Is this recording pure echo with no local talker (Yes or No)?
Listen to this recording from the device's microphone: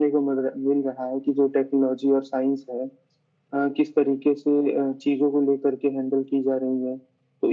Yes